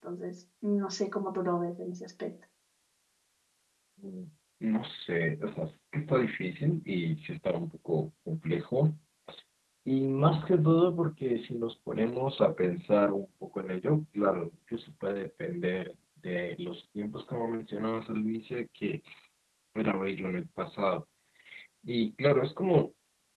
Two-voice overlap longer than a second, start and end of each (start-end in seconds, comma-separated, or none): none